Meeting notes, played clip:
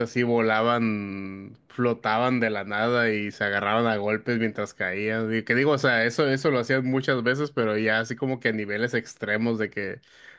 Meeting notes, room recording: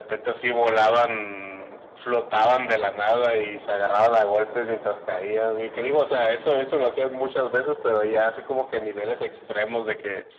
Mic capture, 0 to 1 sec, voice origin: echo only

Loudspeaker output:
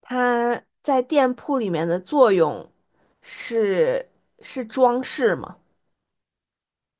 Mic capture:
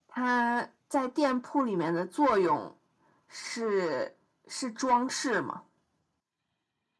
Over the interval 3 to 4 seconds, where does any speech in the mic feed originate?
echo only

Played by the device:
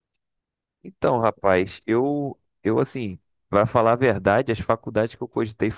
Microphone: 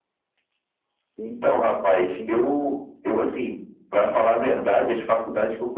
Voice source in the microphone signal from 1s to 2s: both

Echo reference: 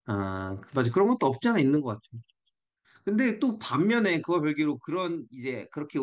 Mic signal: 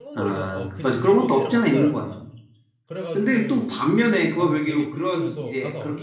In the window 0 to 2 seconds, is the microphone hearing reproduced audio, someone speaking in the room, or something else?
both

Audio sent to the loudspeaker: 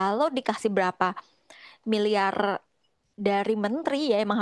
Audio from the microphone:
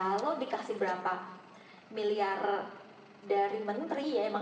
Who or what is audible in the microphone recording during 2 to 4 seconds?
echo only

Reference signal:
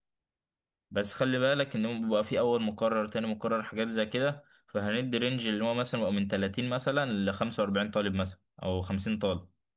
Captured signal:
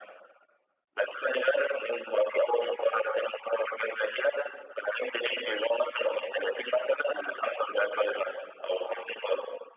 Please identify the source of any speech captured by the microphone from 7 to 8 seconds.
echo only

